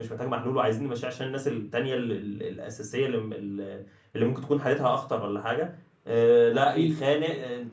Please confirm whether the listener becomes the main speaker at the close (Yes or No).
No